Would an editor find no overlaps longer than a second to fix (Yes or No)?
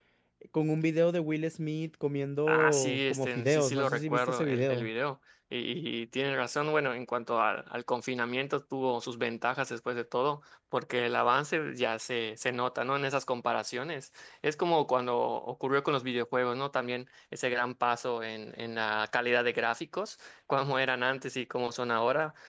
No